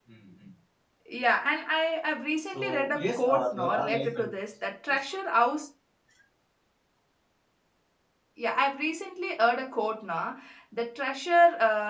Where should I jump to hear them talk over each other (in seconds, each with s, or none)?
2.5 s